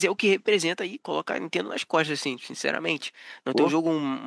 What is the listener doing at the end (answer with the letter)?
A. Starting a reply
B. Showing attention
B